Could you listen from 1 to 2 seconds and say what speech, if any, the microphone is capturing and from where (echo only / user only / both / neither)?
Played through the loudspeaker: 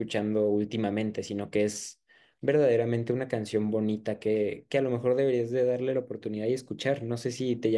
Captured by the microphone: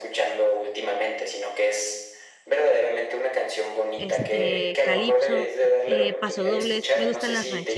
echo only